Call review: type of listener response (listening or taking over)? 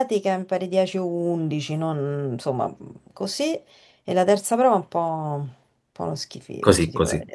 taking over